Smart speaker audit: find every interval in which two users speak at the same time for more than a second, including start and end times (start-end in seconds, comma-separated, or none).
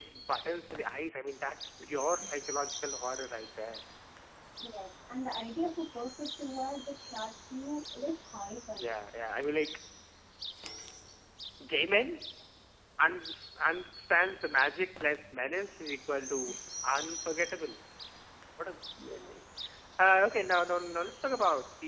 none